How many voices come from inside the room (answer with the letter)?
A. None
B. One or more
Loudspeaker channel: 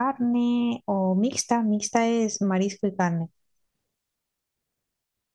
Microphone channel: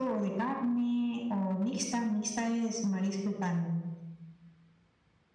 A